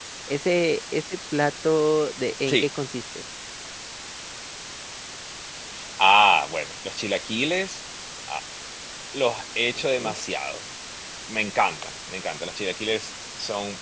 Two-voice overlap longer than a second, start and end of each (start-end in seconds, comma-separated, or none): none